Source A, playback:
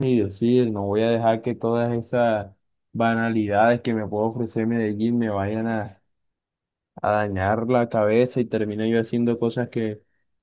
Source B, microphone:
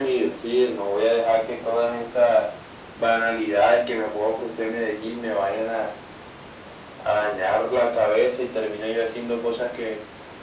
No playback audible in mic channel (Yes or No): No